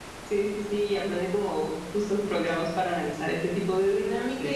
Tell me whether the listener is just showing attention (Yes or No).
Yes